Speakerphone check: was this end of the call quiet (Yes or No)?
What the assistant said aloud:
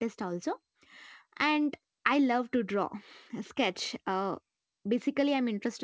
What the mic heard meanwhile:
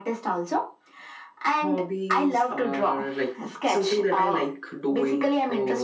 No